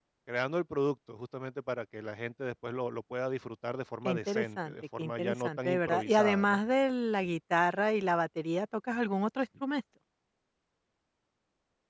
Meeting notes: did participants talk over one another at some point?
Yes, from 4.0 s

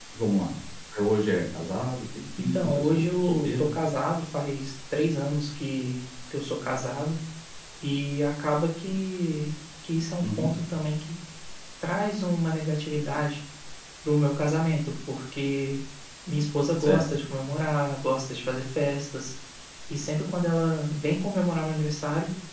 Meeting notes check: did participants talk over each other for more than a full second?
Yes, from 2.4 s

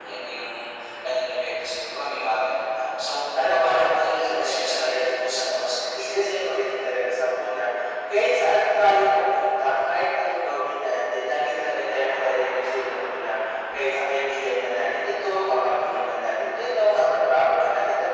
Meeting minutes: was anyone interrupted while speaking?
Yes, from 3.6 s

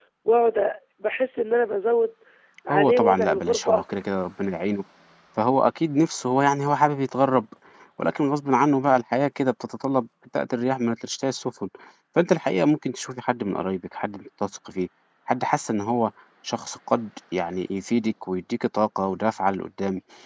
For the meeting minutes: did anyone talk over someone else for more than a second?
Yes, from 2.7 s

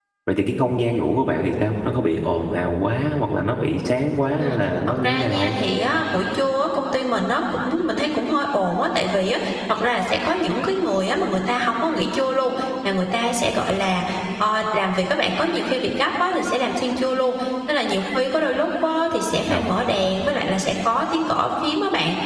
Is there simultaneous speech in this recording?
Yes, from 4.4 s

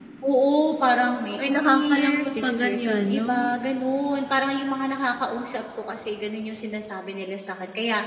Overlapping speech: Yes, from 1.4 s

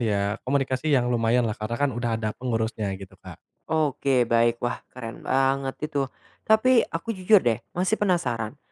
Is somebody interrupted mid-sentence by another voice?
No

